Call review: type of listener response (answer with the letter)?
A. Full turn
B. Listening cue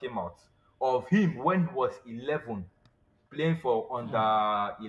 B